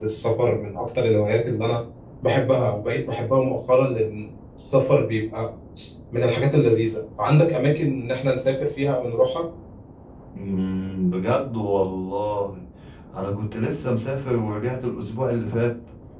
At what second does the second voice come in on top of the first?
none

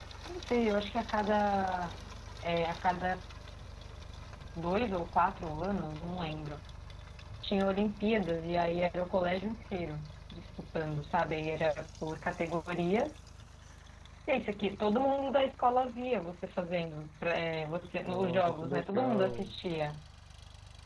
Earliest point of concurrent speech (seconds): 18 s

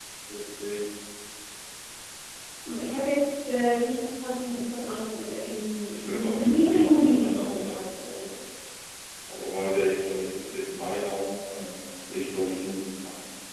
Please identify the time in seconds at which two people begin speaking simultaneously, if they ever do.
6 s

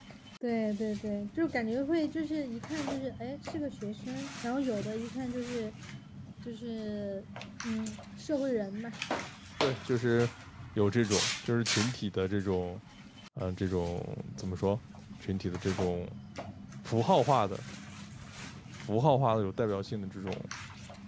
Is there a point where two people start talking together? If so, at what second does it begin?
none

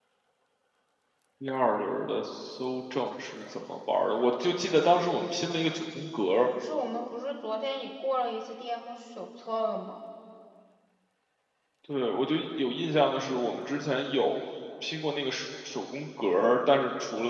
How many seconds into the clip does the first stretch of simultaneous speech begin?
none

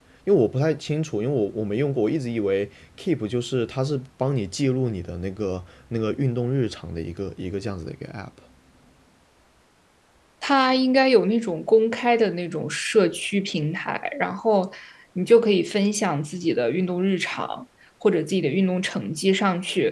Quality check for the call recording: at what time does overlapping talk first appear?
none

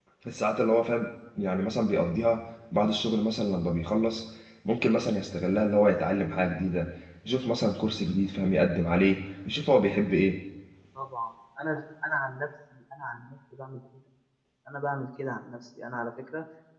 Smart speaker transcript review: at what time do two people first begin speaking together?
none

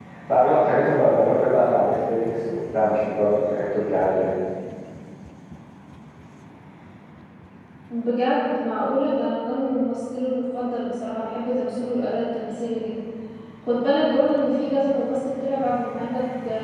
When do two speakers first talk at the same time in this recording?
none

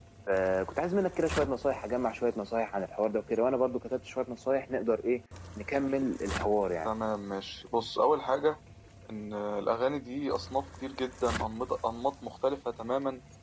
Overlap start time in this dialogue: none

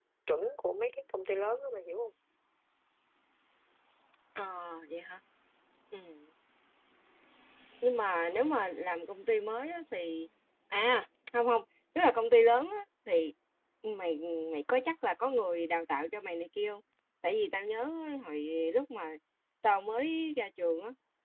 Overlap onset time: none

